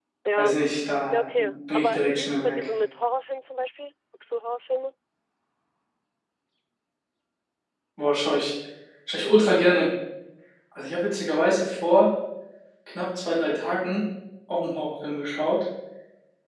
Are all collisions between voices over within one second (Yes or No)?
No